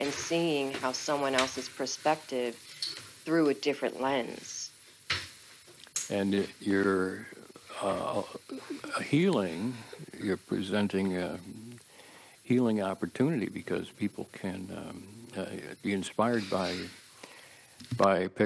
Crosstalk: none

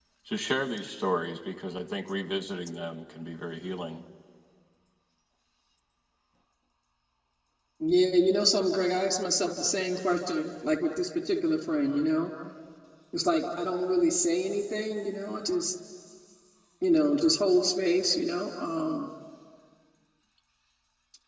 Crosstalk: none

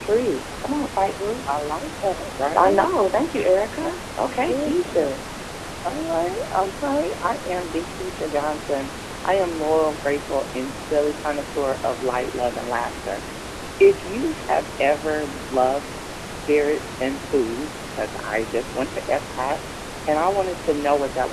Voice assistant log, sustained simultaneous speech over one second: present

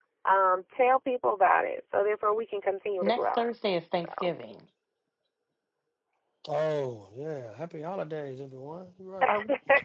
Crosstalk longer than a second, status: none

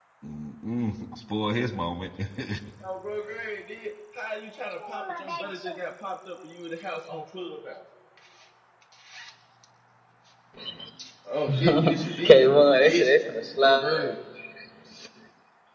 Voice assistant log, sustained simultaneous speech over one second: present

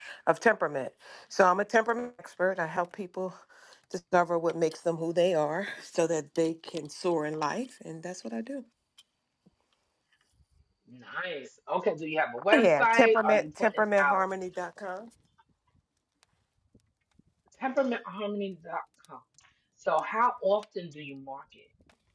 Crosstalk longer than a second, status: present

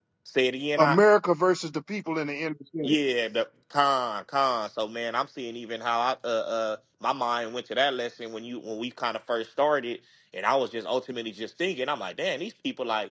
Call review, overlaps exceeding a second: none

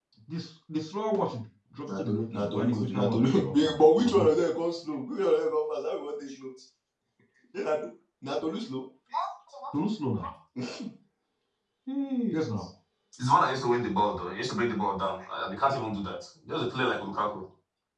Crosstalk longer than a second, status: present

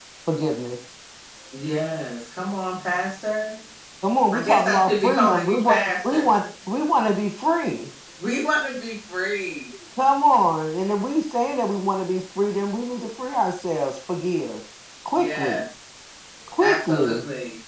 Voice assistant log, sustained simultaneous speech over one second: present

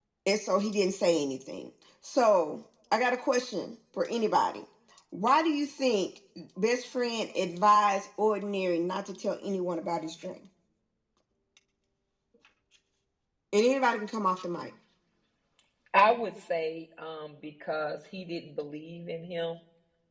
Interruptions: none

